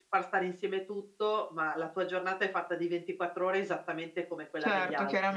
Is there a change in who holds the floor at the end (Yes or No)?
Yes